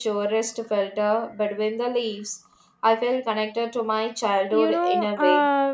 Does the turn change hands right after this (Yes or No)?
Yes